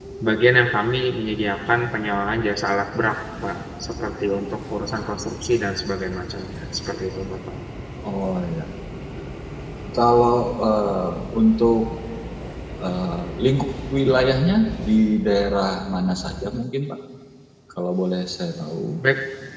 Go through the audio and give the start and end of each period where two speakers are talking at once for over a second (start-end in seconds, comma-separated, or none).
none